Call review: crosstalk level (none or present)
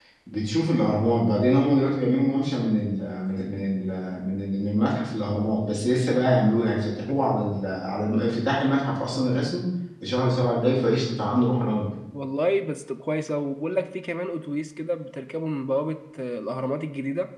none